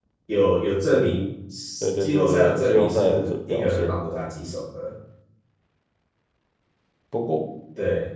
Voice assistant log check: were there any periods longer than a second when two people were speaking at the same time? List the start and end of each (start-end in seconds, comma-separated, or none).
2.0-3.9